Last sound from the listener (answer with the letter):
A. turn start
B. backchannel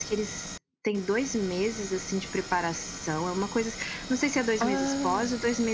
B